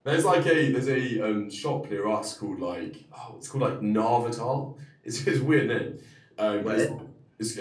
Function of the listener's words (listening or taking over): listening